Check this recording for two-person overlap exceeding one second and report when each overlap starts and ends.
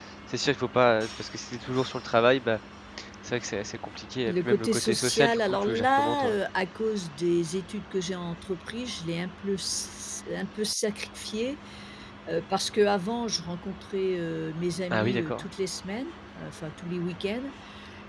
4.3-6.3

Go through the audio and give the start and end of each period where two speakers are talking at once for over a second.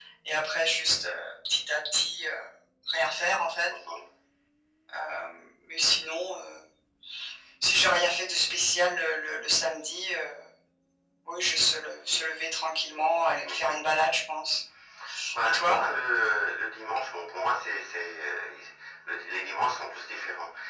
none

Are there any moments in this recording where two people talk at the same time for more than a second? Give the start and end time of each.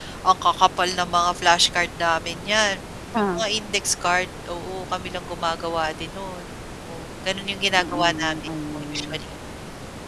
7.8-9.2

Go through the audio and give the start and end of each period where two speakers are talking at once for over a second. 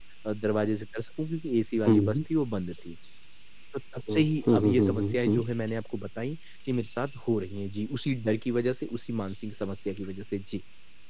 4.1-5.4

